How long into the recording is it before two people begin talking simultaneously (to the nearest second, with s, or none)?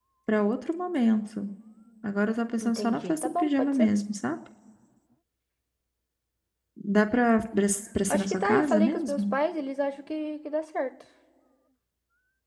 3 s